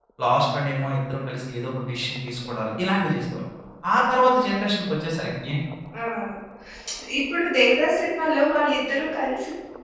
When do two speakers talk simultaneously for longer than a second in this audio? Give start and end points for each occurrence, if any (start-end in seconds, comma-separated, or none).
none